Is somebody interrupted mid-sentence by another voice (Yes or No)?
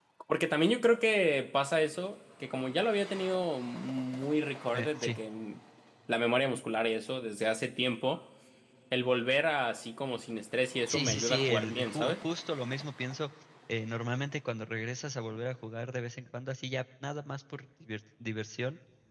Yes